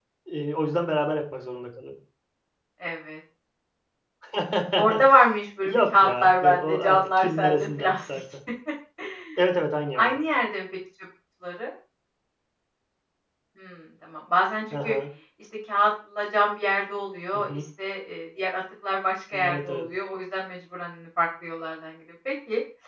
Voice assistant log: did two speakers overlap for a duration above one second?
Yes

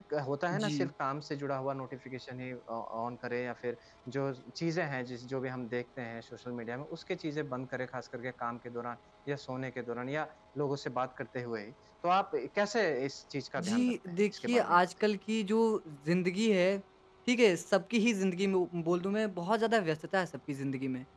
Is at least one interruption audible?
Yes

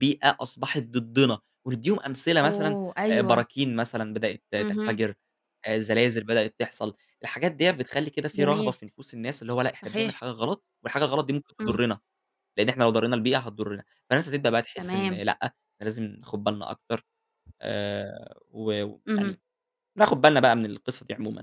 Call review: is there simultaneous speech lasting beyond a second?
No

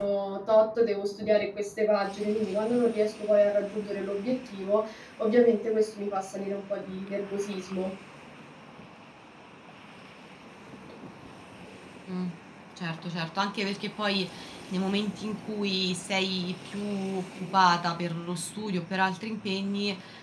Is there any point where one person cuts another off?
No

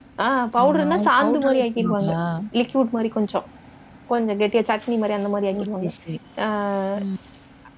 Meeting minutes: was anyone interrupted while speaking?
Yes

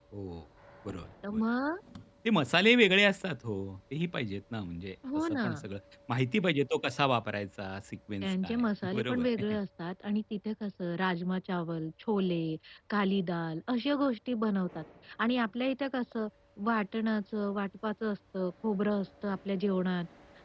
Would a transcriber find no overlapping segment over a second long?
No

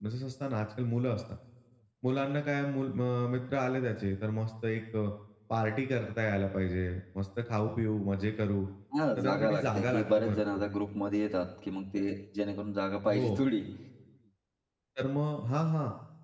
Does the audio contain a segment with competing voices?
Yes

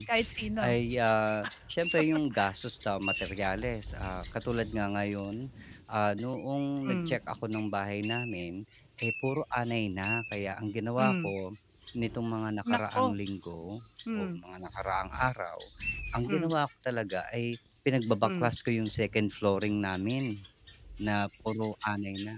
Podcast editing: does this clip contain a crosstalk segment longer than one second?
No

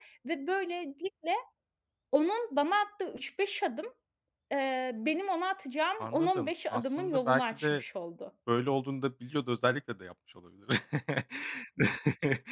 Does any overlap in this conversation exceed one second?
Yes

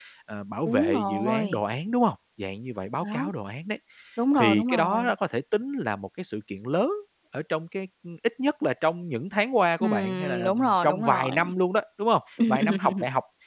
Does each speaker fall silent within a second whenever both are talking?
No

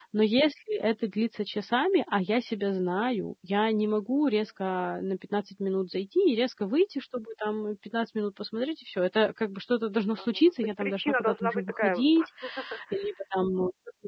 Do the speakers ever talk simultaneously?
Yes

